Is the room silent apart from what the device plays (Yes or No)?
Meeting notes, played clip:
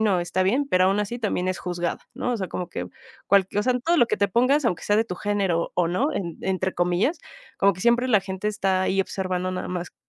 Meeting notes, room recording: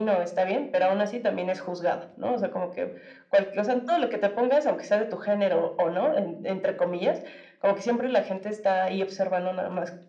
Yes